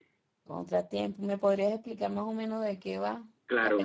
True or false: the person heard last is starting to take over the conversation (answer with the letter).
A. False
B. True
B